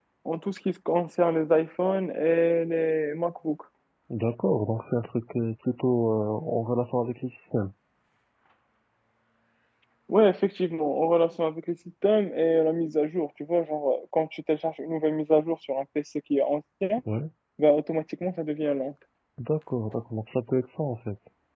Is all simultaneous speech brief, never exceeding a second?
Yes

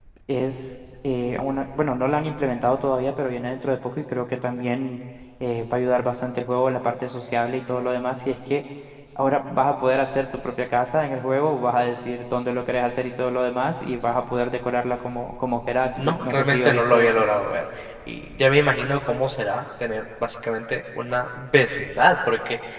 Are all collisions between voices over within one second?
No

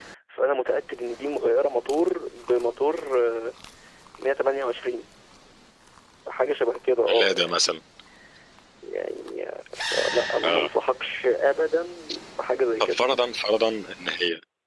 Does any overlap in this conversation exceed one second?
No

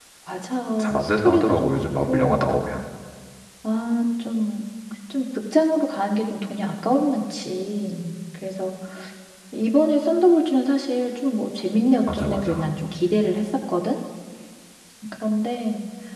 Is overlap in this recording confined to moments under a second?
No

